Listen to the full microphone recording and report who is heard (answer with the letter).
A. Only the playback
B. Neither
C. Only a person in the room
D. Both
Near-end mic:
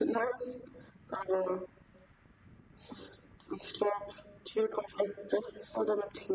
A